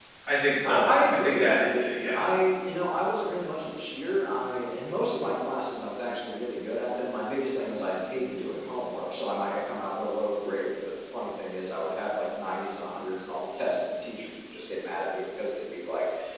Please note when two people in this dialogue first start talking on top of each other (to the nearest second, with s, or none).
1 s